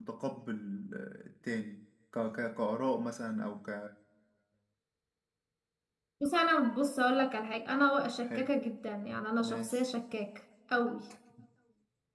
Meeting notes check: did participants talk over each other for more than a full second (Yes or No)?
No